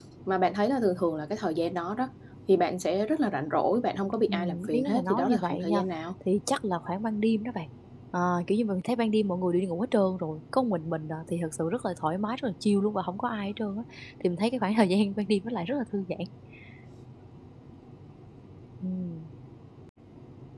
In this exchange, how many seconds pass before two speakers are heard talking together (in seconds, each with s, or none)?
4.3 s